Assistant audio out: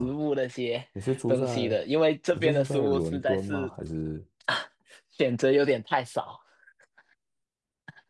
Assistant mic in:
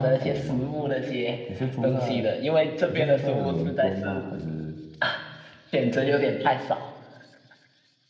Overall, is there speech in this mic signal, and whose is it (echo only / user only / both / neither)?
echo only